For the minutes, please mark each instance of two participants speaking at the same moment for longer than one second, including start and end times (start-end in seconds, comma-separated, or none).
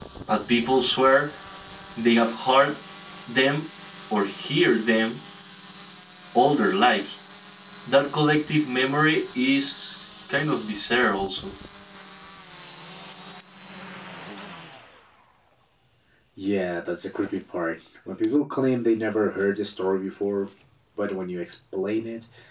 none